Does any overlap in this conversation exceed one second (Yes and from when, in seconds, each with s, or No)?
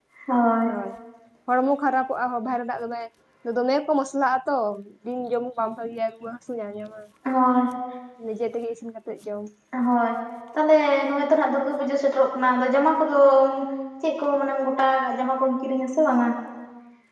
No